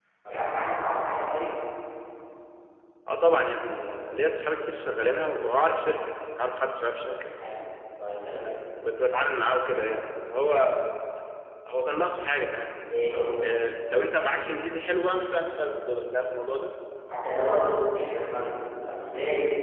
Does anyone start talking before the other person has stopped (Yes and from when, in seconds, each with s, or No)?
No